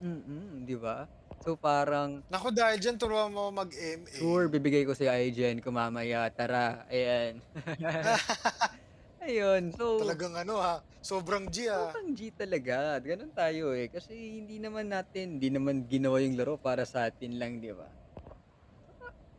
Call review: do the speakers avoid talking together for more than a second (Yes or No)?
Yes